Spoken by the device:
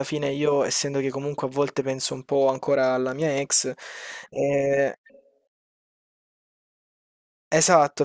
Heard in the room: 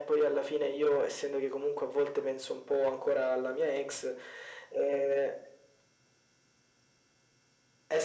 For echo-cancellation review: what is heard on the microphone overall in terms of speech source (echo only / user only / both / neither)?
echo only